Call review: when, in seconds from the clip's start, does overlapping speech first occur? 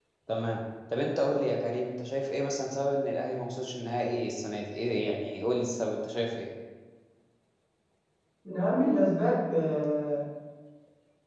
none

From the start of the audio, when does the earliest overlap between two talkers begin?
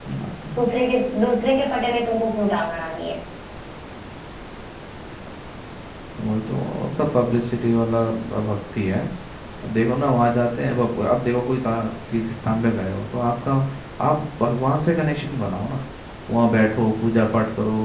none

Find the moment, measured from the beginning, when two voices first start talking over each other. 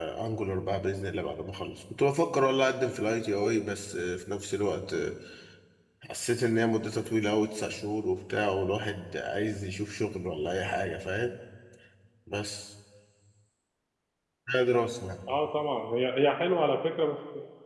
none

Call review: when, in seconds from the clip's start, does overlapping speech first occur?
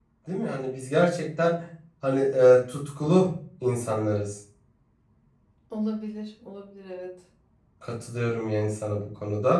none

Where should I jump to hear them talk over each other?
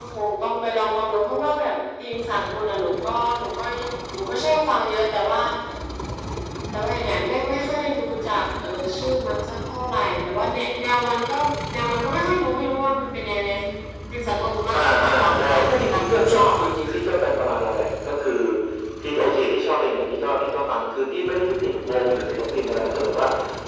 14.7 s

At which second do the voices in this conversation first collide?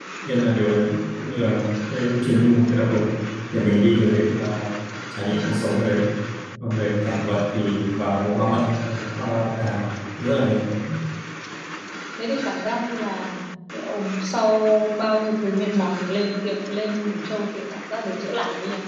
none

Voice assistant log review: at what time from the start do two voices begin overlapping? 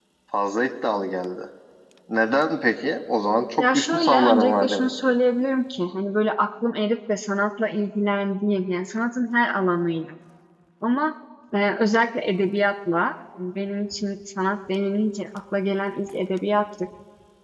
3.6 s

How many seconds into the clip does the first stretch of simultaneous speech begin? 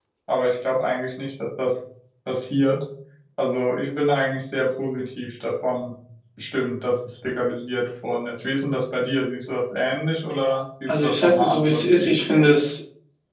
10.9 s

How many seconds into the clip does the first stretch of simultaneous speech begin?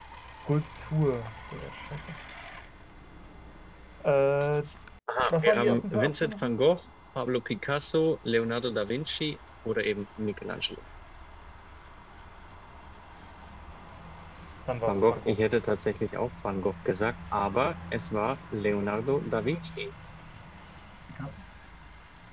5.3 s

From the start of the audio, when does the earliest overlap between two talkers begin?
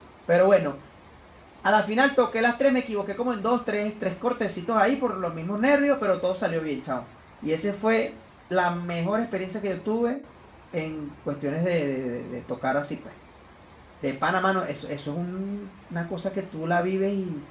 none

